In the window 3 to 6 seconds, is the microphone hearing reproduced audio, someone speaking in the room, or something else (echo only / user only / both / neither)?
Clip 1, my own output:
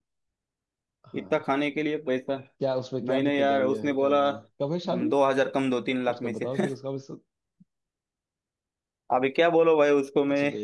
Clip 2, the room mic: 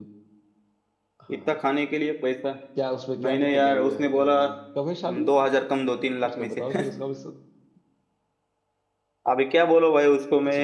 echo only